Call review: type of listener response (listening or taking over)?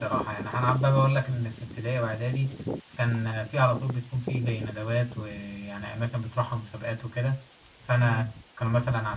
listening